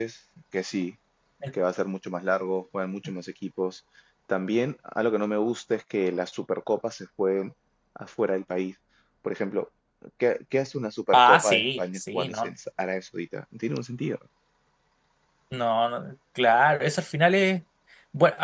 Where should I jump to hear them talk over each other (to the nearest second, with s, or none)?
11 s